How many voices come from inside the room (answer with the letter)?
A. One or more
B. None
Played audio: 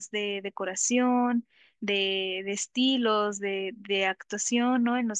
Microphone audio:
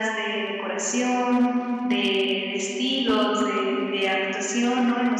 B